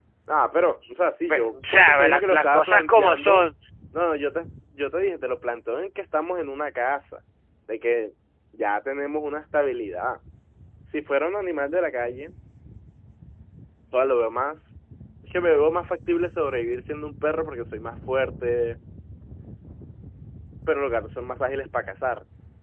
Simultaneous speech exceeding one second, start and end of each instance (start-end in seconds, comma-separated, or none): 1.3-3.5